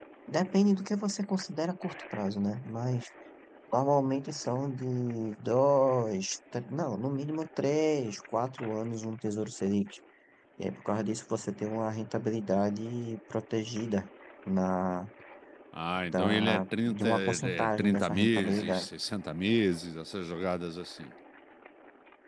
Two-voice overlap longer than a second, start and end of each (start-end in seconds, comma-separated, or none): 16.0-18.9